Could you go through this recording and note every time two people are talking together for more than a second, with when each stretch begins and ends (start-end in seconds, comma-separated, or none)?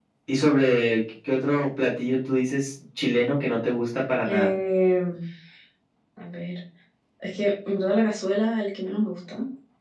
none